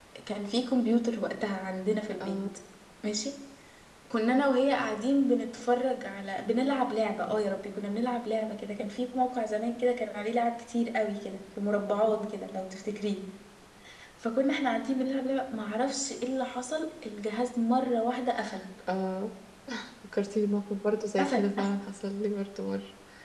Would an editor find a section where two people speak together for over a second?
No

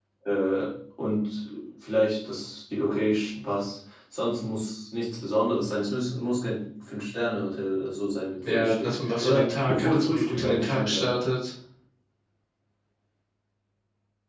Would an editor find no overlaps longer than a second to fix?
No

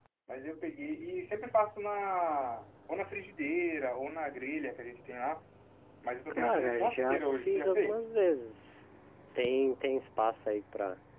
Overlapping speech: Yes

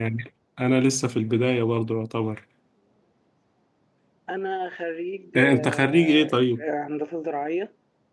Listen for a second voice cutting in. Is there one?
Yes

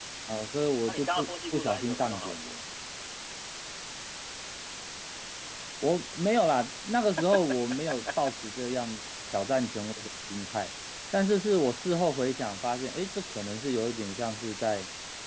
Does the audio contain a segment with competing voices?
Yes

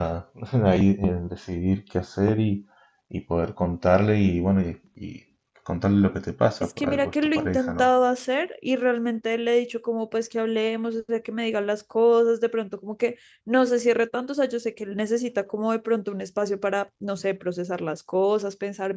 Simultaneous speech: Yes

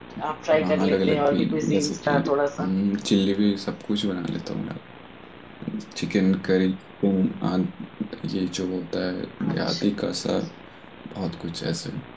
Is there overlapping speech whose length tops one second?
Yes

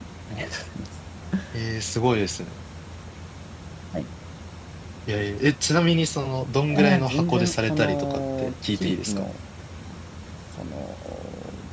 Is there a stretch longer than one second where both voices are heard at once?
Yes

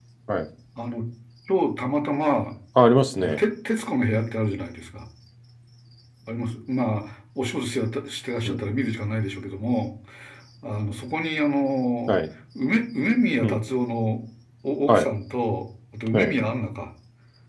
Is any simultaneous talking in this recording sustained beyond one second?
No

